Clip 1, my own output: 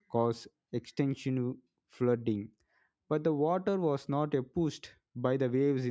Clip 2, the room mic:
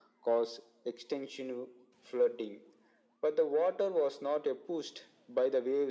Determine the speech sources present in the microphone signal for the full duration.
echo only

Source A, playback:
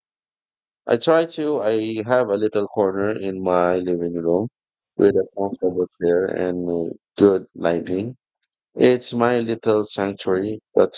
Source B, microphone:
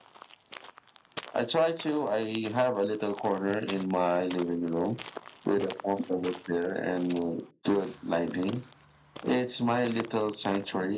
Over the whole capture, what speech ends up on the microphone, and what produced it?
echo only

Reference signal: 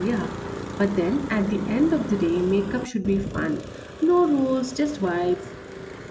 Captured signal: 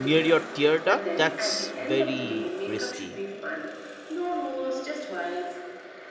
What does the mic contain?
both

